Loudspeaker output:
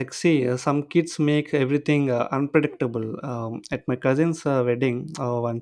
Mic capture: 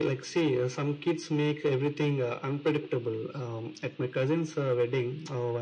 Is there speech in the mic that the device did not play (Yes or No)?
No